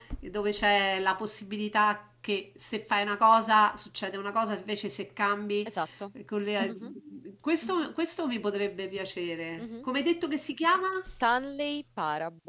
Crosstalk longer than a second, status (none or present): none